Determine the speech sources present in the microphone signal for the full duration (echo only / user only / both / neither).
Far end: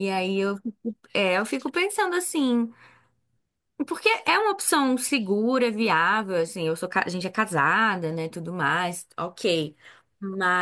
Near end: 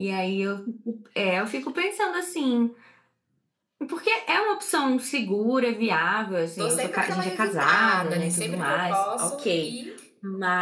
both